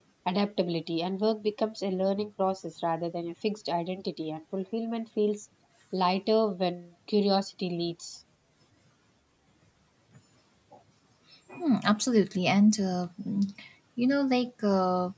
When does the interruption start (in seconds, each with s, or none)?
none